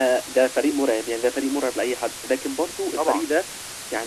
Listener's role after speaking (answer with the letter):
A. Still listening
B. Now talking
A